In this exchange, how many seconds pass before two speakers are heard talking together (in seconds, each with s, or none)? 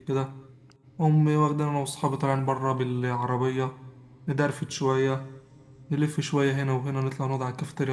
none